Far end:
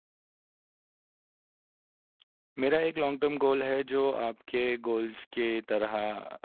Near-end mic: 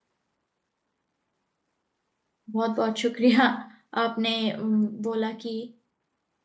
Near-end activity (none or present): present